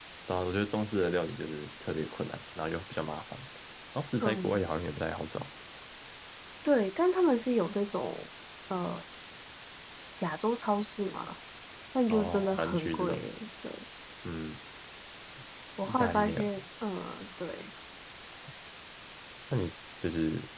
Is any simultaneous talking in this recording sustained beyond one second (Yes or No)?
Yes